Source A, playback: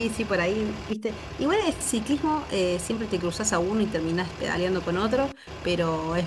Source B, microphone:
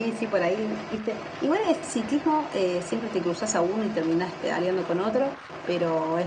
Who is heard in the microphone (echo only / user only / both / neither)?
echo only